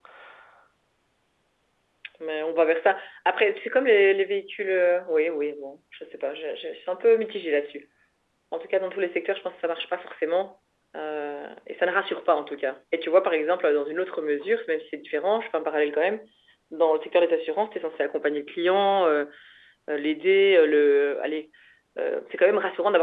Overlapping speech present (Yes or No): No